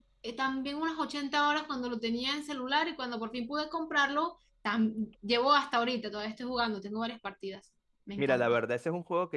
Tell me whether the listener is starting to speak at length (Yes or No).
Yes